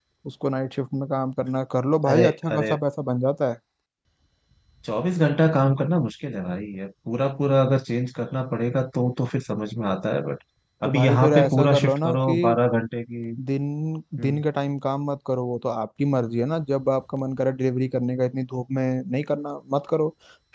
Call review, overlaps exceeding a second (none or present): present